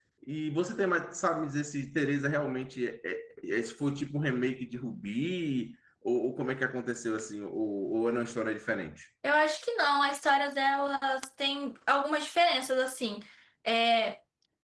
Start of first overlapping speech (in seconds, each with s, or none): none